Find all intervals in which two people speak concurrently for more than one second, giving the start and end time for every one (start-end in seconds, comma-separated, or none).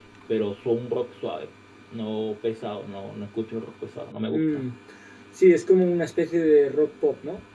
none